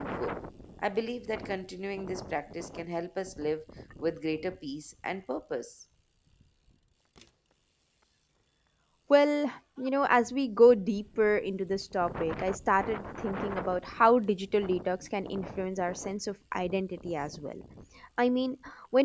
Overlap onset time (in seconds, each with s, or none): none